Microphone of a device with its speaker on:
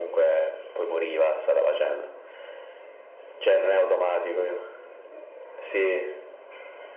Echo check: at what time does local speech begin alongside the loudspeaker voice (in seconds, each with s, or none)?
none